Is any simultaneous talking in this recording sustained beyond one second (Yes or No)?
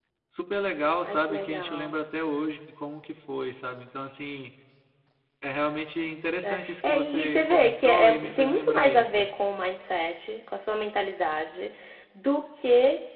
Yes